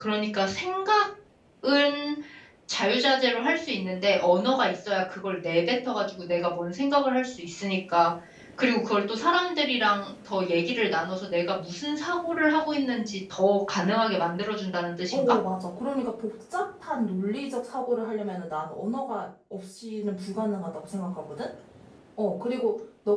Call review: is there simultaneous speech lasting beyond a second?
No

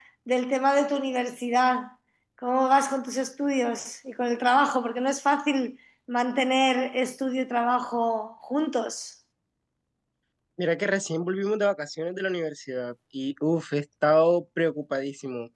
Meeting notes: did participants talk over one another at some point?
No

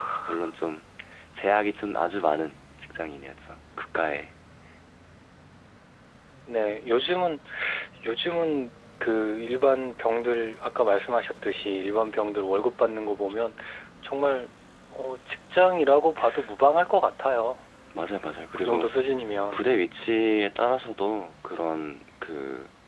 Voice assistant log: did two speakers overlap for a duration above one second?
No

